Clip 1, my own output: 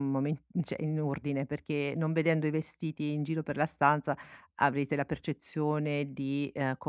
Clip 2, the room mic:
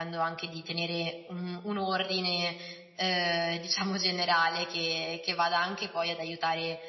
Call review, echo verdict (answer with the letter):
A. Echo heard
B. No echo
B